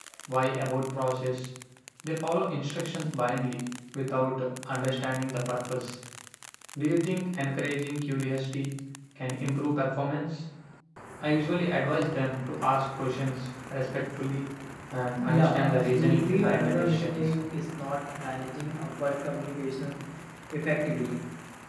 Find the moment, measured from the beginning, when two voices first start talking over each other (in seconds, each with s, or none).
15.2 s